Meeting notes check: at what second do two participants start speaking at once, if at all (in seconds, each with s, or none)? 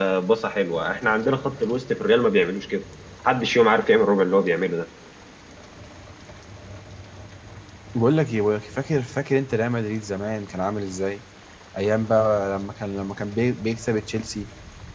none